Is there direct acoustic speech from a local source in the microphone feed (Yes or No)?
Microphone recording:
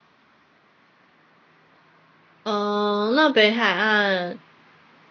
Yes